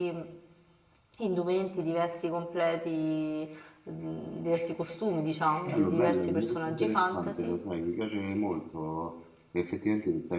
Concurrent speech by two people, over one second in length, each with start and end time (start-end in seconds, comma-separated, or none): 5.7-7.6